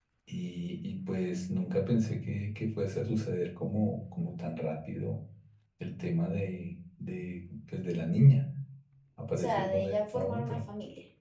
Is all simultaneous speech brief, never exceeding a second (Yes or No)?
No